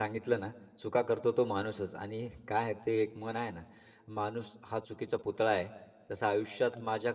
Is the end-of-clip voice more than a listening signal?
No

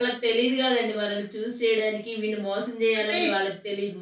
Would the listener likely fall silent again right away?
Yes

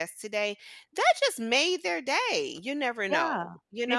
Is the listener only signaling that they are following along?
No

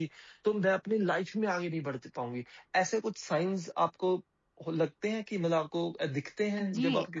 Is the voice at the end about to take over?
Yes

